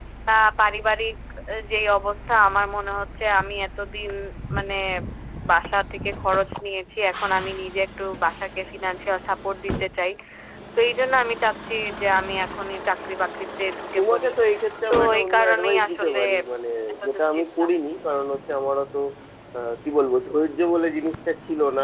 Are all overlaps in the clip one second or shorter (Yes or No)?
No